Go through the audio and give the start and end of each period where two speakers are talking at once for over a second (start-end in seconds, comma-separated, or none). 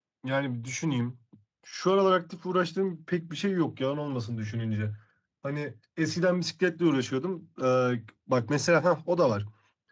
none